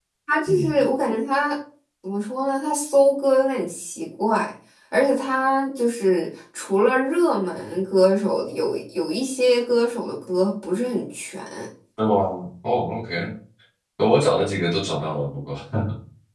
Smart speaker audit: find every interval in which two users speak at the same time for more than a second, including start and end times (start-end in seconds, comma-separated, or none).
none